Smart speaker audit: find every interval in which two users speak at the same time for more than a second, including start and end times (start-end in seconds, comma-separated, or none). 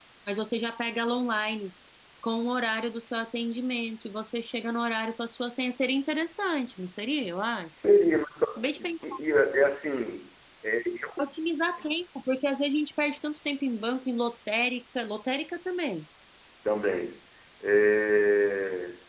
none